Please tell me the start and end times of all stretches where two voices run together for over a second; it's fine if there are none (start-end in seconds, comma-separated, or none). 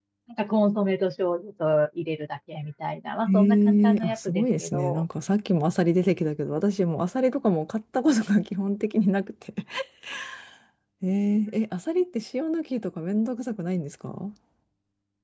3.3-5.0